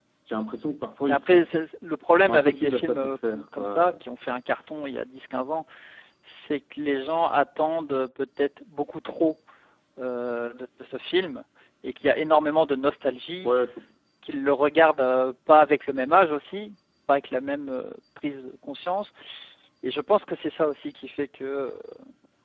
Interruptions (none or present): present